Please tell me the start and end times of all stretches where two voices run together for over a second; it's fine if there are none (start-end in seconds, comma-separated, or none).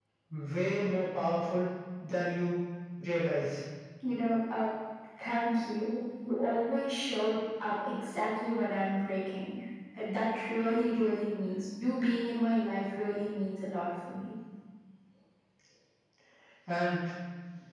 none